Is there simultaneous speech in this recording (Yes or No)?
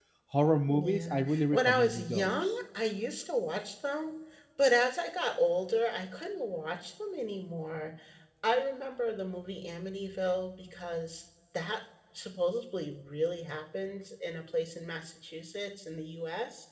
Yes